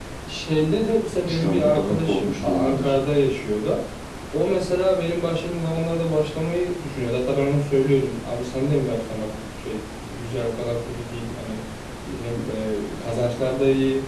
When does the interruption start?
1 s

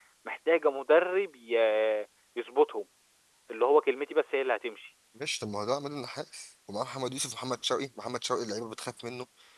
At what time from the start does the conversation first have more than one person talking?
none

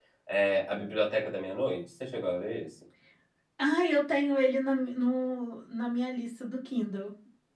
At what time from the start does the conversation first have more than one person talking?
none

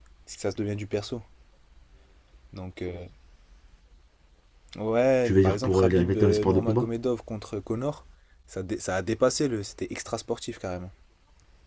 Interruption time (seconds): 5 s

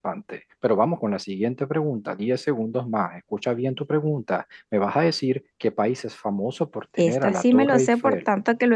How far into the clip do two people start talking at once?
7 s

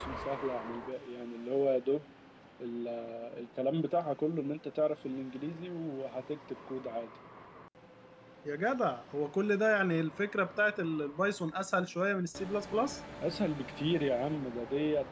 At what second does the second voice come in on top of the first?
none

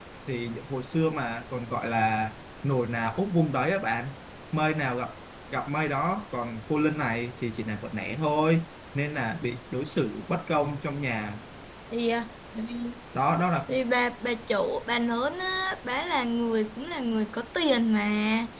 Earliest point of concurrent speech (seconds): none

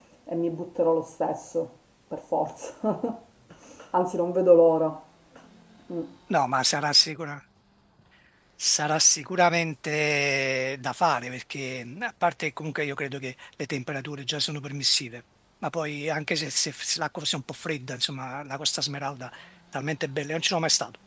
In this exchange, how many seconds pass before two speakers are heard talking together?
none

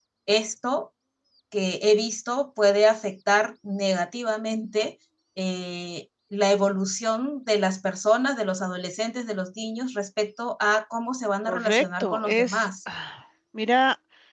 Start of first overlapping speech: 11 s

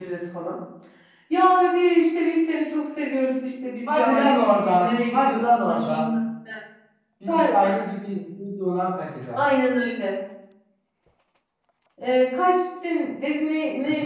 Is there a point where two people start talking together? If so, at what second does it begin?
4 s

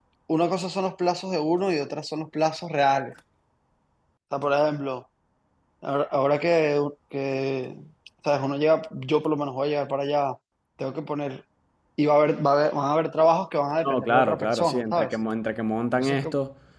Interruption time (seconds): 14 s

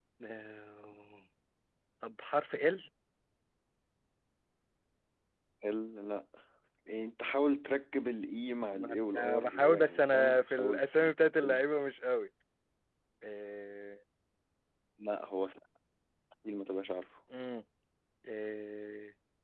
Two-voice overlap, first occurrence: 9 s

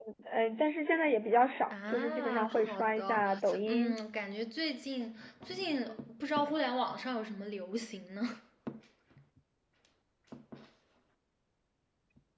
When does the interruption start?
2 s

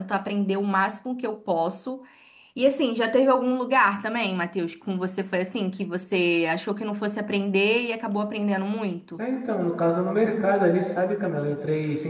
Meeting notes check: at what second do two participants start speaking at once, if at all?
none

